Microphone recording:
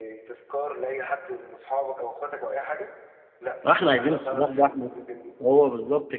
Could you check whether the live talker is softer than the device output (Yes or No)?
No